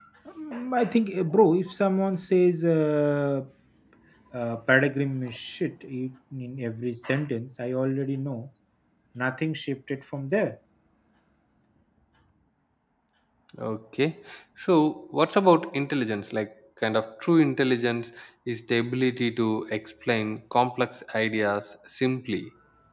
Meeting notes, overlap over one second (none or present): none